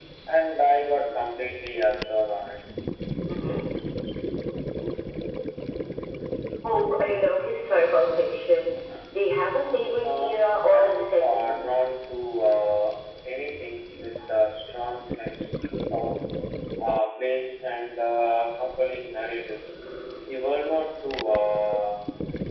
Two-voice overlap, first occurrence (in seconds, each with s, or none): 10.0 s